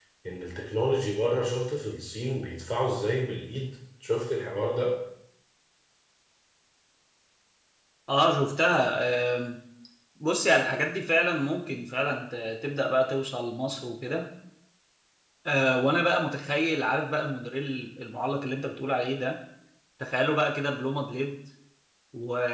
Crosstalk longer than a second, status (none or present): none